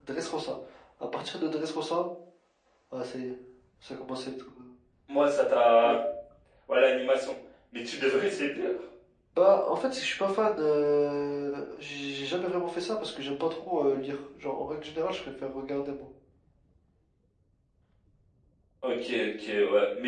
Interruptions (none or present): none